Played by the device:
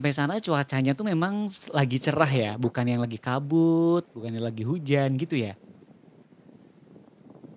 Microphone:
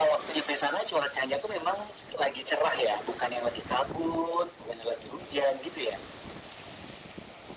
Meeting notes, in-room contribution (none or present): none